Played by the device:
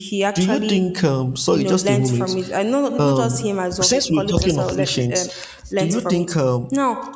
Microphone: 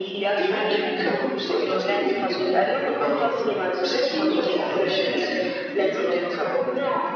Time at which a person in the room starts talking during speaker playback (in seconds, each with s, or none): none